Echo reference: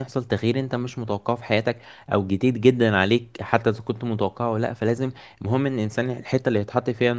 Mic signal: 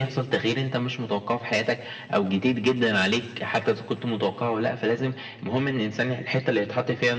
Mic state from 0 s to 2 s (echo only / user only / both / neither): echo only